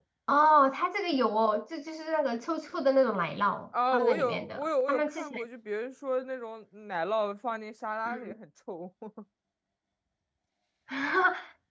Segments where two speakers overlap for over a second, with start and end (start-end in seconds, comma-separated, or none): 3.9-5.4